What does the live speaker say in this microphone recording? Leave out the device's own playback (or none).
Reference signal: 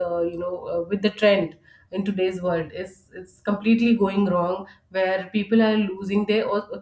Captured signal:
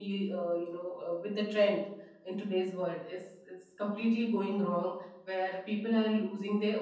none